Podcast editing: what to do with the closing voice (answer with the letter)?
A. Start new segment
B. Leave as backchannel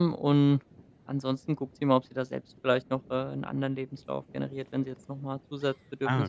A